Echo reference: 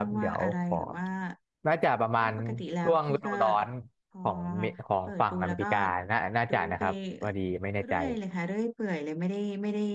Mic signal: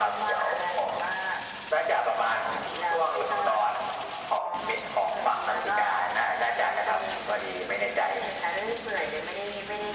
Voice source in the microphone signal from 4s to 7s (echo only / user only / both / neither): echo only